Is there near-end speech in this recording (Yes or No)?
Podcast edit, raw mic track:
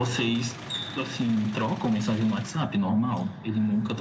No